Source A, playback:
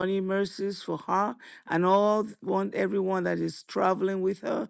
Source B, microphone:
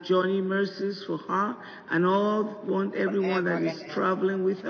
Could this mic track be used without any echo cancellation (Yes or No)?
No